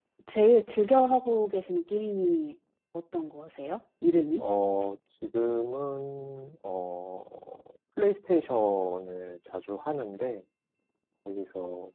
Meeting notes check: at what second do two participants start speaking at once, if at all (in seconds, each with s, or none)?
none